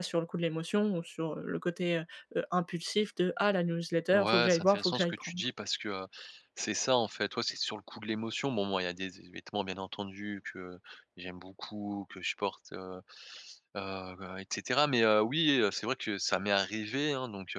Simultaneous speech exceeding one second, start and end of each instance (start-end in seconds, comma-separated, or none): 4.1-5.4